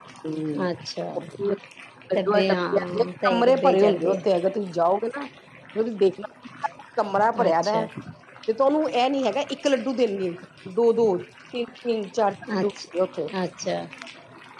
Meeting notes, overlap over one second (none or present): present